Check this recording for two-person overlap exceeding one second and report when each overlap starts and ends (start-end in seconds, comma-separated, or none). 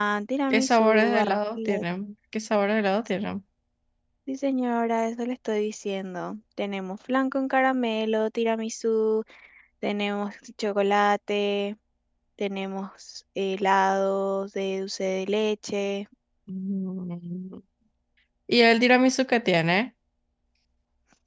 0.5-1.8